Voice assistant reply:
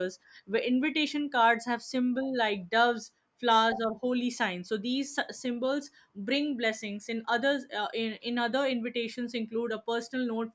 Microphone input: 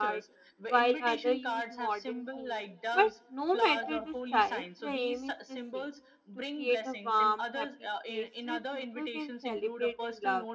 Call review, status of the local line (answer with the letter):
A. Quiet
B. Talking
B